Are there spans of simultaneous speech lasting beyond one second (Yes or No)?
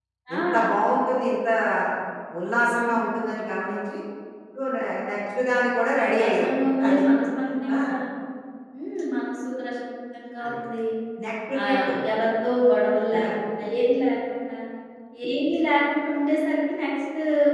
No